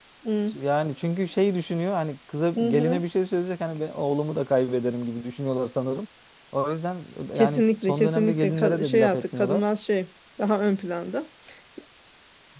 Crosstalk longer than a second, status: present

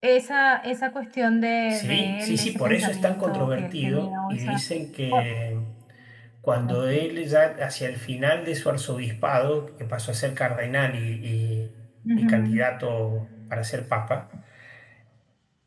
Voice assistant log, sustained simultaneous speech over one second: present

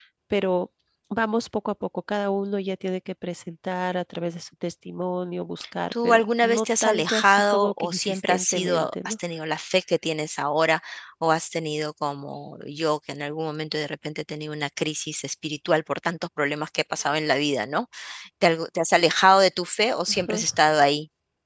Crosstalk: present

